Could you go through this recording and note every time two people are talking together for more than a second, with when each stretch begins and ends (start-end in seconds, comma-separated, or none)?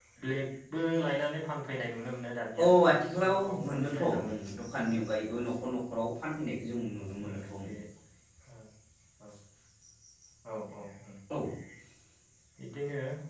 2.6-4.3